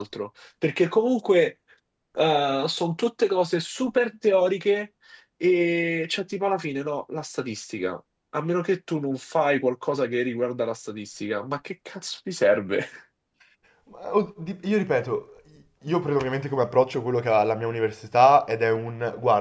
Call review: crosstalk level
none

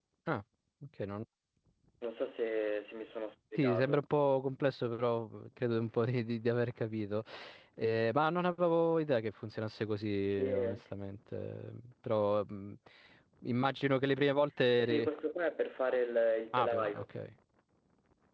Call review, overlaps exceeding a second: none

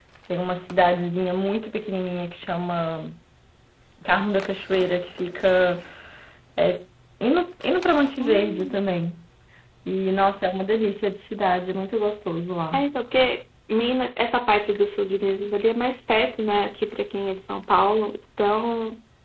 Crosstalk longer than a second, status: none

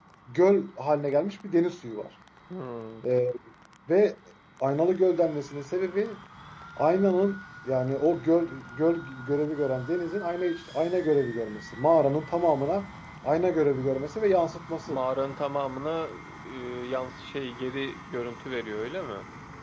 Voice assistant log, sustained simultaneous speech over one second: none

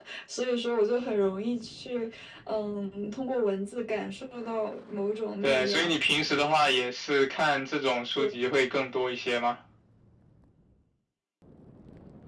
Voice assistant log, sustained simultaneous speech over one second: none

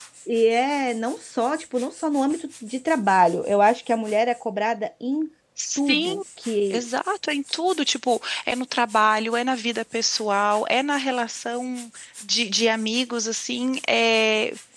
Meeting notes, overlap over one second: none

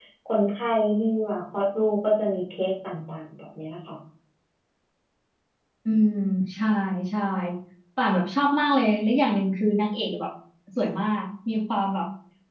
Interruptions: none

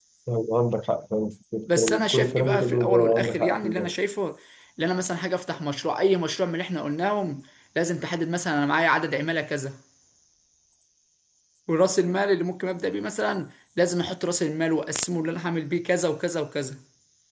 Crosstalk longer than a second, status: present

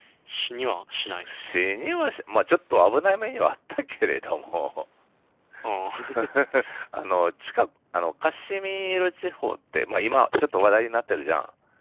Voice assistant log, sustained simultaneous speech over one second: none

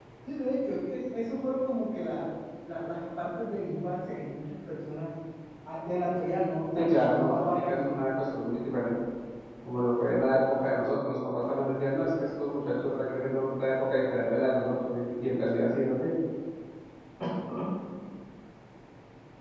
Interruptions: present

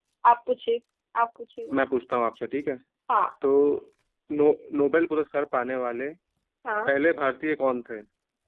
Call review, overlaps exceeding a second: none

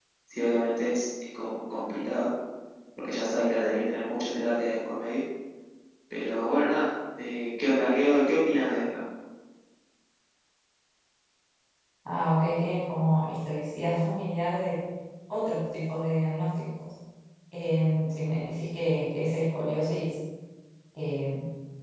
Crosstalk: none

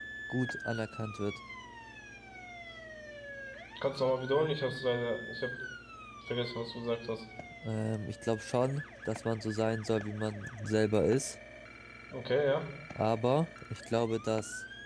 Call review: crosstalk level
none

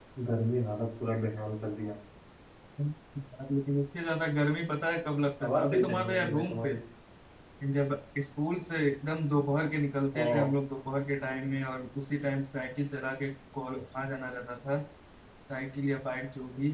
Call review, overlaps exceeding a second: present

